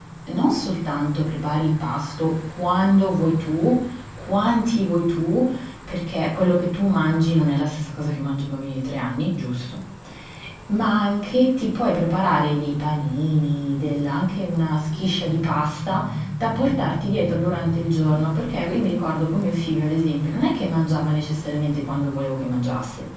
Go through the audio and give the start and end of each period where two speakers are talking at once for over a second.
none

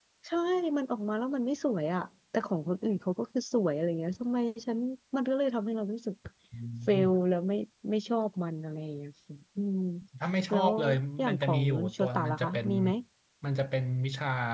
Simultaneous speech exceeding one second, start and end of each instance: 11.3-12.7

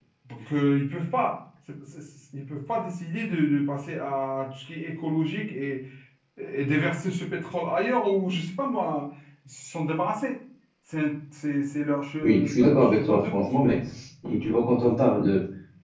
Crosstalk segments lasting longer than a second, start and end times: 12.2-13.8

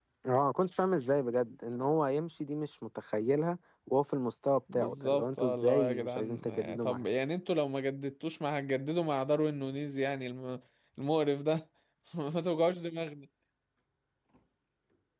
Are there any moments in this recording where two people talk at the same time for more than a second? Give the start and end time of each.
4.7-7.0

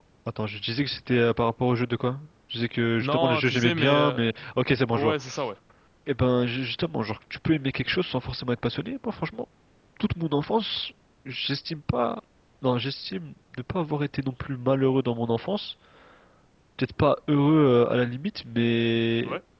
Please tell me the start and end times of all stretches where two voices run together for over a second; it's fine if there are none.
3.0-4.2

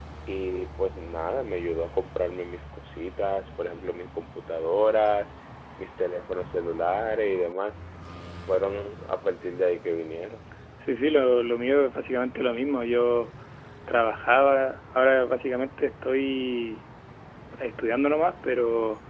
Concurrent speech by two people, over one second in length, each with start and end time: none

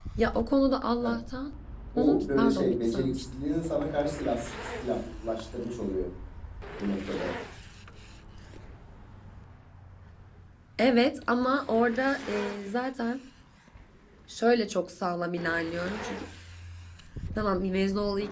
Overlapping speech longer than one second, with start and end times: 1.9-3.2

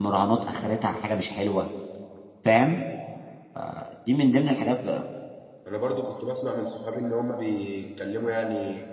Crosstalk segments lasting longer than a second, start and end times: none

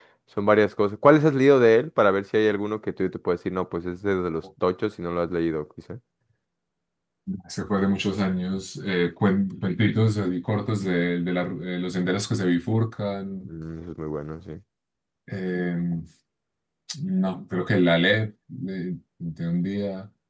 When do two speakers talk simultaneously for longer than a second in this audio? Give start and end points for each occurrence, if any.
none

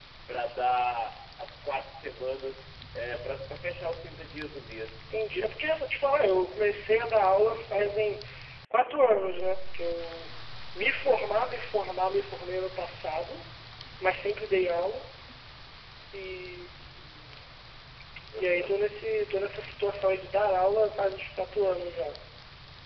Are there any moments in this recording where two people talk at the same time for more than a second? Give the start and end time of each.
none

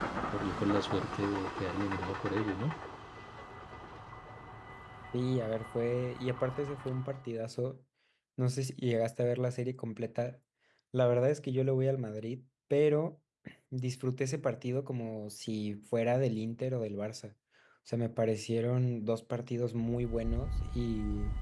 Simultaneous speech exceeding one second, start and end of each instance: none

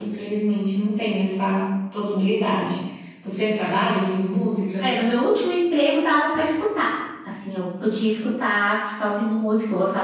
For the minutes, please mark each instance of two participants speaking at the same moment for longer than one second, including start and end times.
none

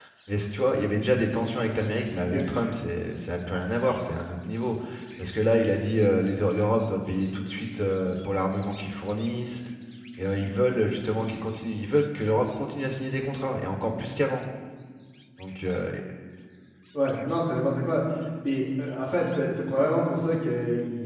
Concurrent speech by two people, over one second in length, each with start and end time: none

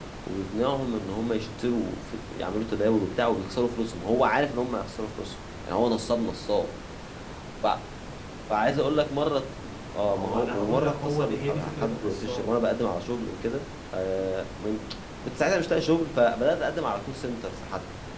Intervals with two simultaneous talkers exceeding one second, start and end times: 10.0-12.5

